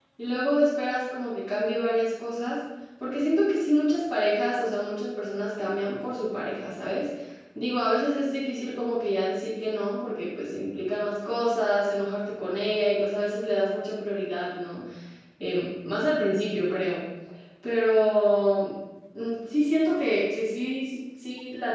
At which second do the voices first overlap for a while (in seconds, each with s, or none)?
none